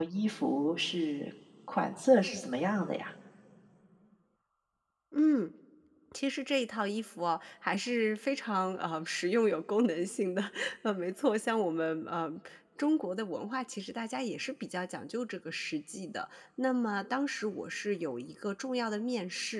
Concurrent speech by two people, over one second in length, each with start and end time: none

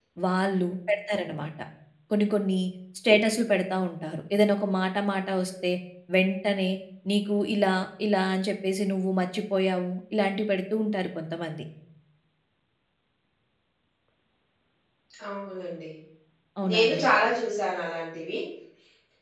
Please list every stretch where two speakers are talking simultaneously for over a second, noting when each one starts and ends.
none

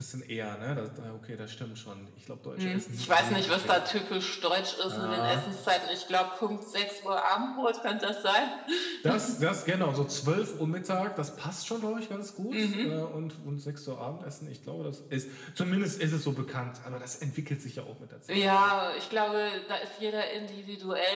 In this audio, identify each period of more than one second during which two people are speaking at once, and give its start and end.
2.6-3.8

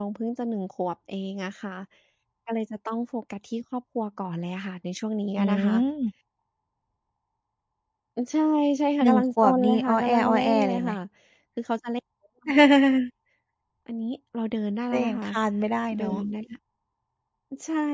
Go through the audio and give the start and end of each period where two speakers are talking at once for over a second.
9.0-10.9

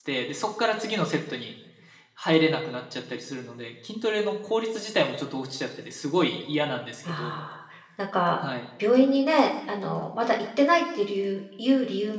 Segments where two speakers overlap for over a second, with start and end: none

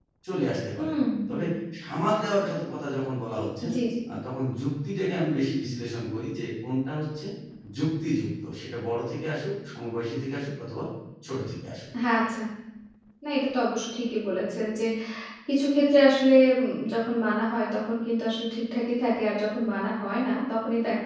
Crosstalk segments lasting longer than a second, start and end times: none

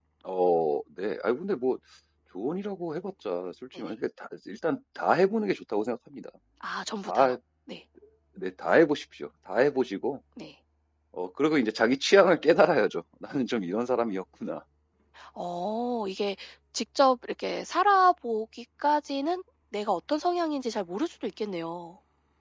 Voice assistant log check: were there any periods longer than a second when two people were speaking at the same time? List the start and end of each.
none

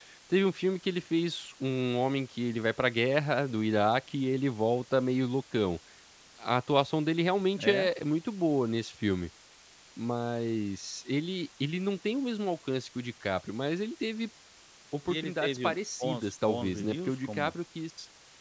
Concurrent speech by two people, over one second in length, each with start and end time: 15.1-17.5

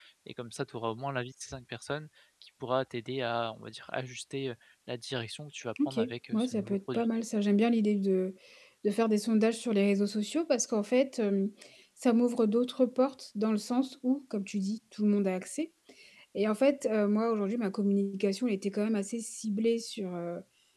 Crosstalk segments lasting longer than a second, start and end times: 5.8-7.0

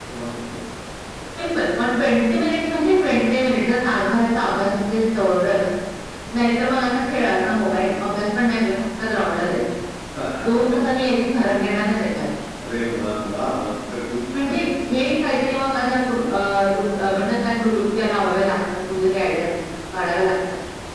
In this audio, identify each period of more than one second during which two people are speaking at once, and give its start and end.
none

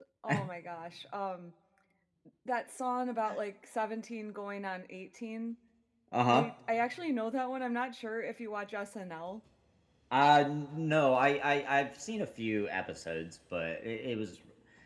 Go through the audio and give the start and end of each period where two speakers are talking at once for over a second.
none

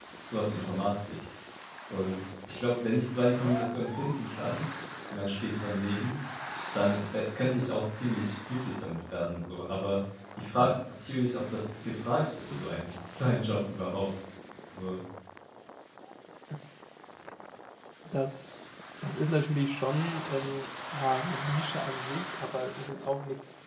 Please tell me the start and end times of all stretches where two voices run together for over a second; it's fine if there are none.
none

